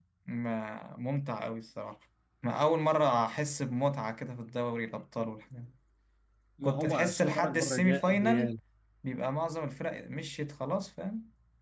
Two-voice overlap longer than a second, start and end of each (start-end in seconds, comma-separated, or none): 6.6-8.5